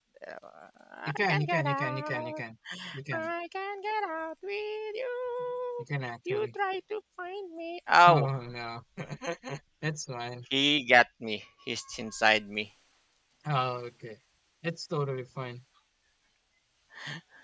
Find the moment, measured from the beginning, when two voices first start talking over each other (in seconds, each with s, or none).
1.1 s